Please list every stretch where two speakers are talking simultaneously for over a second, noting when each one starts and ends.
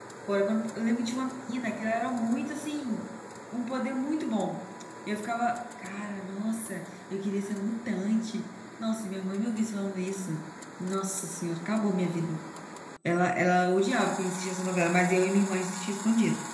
none

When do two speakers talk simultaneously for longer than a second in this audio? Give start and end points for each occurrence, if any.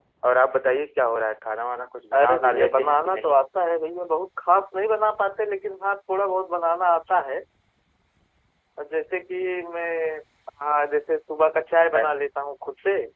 2.1-3.4

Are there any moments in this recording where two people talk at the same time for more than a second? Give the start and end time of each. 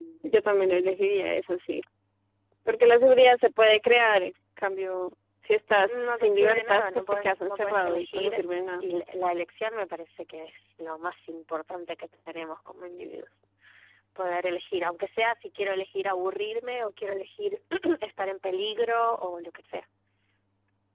5.9-8.4

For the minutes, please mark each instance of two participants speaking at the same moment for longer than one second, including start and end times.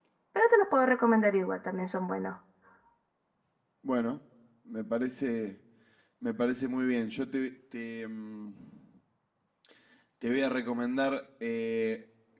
none

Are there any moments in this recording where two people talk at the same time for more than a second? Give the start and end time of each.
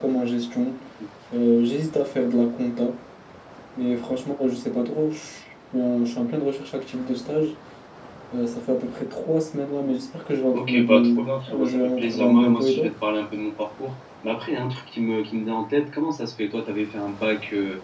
10.5-12.9

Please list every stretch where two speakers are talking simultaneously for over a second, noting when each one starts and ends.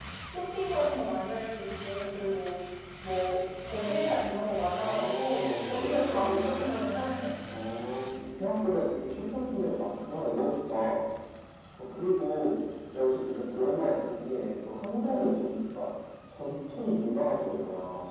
4.7-6.7

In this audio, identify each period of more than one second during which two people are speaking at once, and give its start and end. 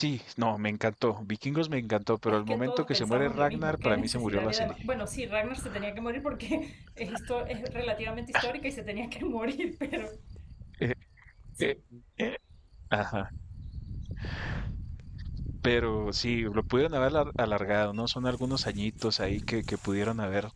2.3-4.8

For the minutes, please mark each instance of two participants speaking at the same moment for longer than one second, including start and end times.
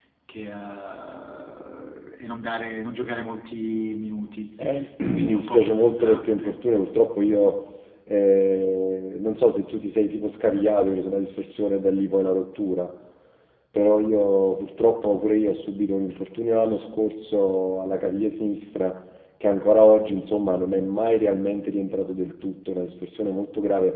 5.1-6.6

